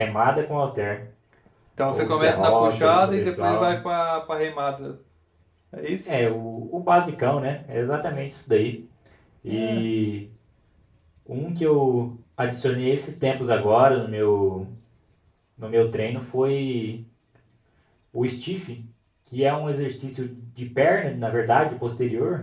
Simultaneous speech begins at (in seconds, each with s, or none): 1.9 s